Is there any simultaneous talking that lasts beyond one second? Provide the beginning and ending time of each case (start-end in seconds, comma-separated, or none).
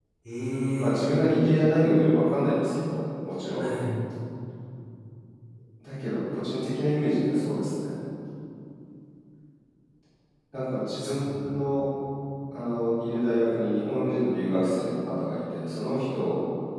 none